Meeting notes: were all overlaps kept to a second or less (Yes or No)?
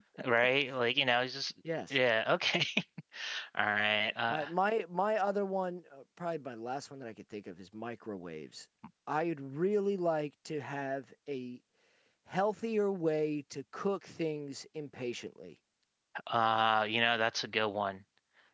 Yes